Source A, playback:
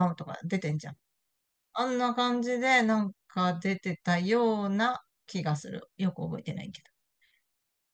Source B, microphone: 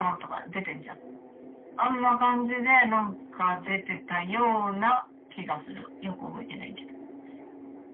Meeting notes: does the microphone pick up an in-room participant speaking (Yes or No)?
No